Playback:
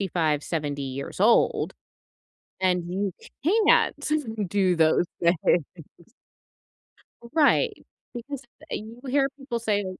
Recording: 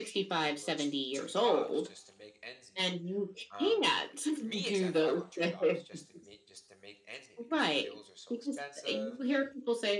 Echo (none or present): present